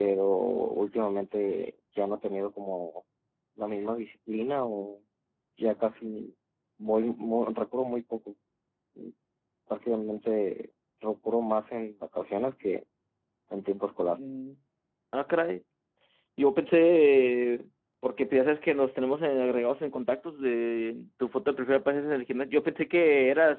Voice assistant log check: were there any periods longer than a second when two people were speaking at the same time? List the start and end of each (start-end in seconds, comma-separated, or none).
none